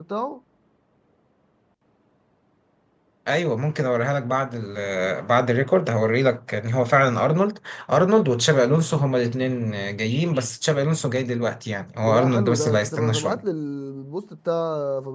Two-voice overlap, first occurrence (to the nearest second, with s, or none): 12 s